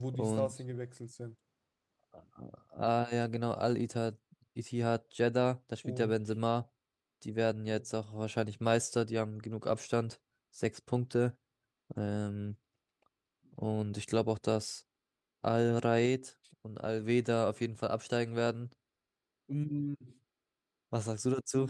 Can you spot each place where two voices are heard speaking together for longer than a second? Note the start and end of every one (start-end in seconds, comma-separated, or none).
none